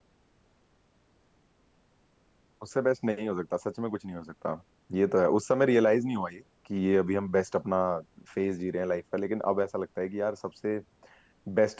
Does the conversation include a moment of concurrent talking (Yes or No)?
No